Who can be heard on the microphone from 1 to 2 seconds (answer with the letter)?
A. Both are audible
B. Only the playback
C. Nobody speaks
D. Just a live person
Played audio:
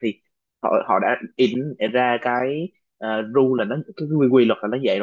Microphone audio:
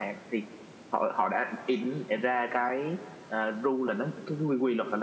B